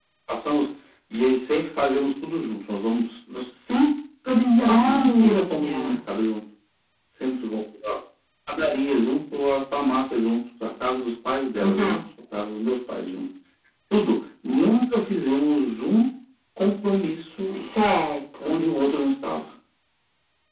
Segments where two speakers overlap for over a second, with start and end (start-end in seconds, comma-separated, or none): 4.6-6.0